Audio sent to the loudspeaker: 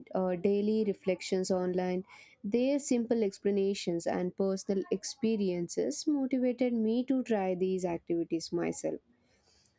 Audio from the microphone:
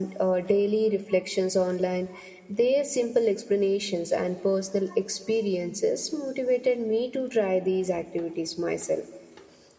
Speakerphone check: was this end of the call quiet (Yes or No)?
Yes